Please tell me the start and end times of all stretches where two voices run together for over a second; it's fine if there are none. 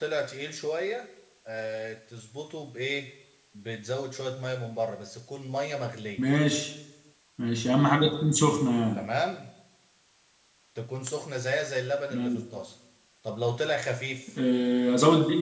none

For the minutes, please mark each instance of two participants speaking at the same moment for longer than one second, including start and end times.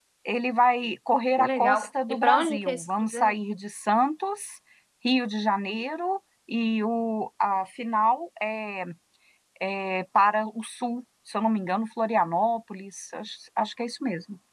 1.4-3.4

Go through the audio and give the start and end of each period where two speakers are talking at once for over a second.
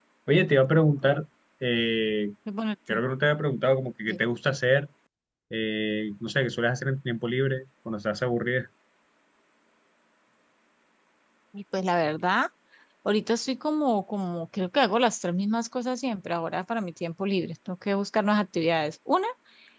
none

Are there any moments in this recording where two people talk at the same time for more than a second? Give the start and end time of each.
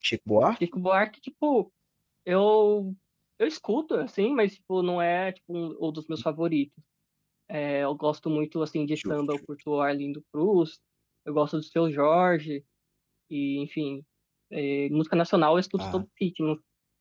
none

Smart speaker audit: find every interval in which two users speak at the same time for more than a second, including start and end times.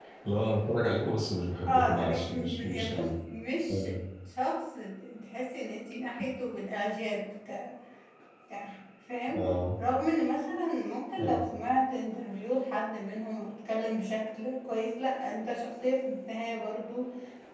1.7-3.1

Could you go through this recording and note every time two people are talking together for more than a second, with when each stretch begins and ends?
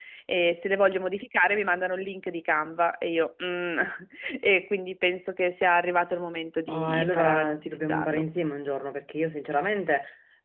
6.7-8.2

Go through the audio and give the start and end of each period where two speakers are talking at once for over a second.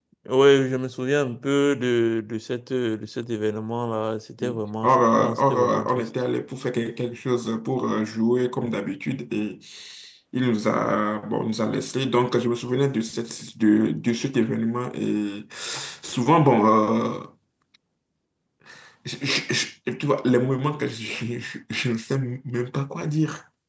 4.4-6.0

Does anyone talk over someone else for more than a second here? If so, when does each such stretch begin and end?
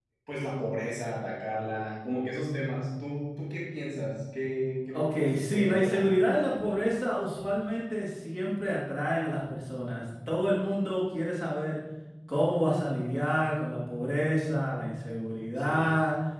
4.9-6.1

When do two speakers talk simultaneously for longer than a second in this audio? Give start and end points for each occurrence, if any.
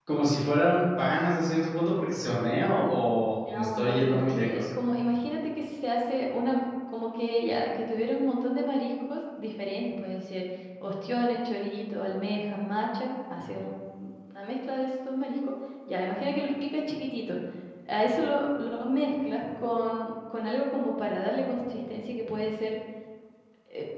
3.5-4.7

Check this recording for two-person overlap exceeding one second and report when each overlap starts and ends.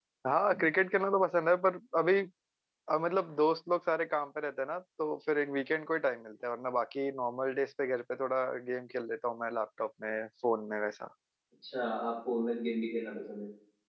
none

